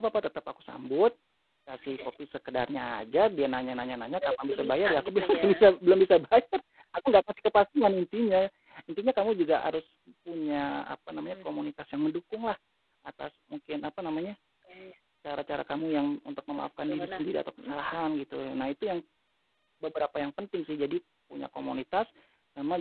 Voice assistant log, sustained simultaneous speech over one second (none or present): present